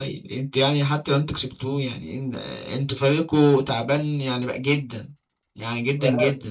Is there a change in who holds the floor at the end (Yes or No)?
Yes